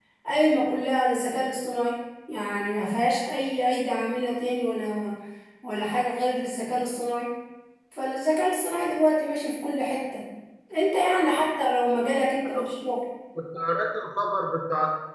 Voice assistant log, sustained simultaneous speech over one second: none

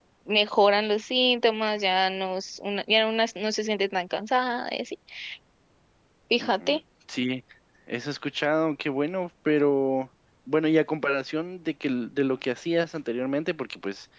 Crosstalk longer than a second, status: none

